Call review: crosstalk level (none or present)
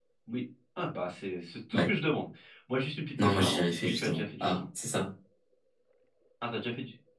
present